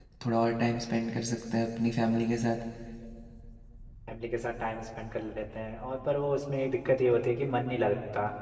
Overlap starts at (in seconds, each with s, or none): none